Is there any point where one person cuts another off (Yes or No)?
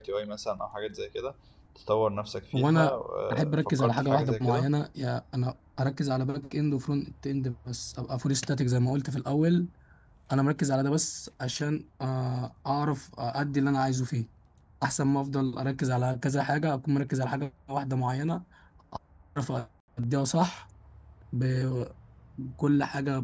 Yes